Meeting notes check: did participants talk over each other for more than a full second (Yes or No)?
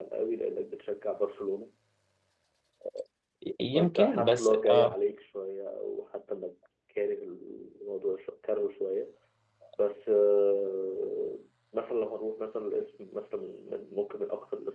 Yes